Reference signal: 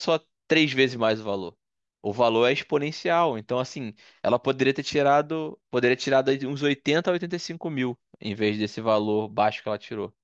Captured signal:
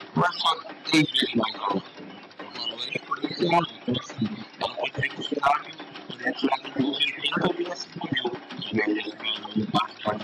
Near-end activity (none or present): none